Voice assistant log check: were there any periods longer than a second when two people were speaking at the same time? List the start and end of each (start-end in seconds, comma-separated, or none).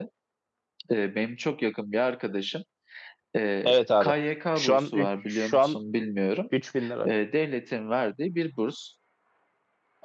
4.5-5.8